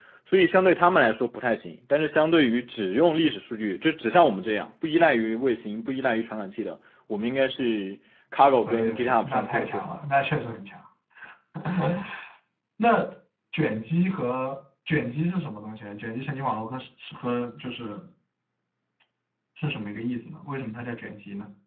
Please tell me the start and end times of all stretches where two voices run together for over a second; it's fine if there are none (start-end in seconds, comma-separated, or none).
8.7-10.0